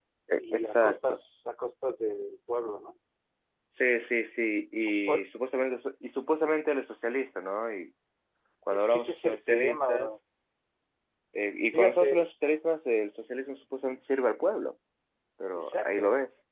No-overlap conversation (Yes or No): No